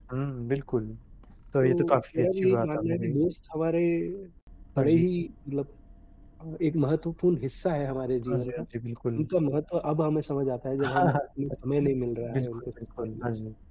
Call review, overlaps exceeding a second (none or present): present